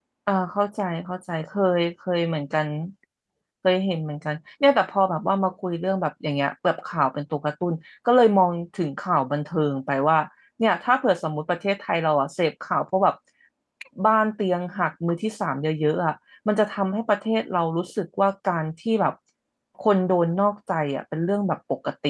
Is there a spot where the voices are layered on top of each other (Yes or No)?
No